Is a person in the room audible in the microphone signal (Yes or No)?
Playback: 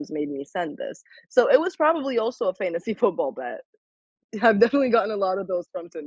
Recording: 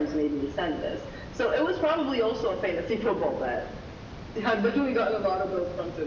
No